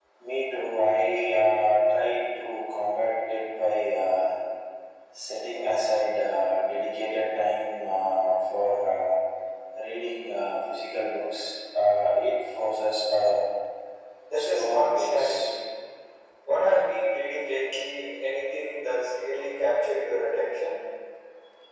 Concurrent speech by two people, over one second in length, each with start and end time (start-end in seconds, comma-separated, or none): 14.4-15.6